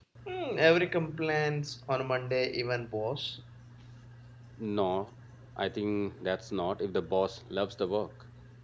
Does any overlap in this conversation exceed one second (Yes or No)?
No